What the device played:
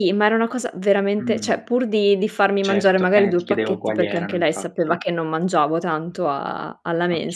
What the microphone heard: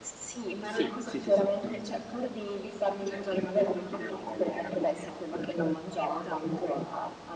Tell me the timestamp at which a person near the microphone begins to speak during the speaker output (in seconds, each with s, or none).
0.6 s